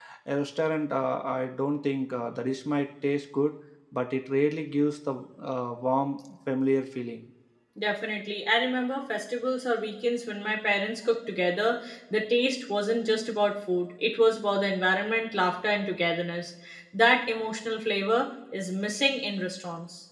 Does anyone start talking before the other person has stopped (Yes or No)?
No